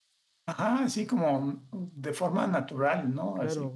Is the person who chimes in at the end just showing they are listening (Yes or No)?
No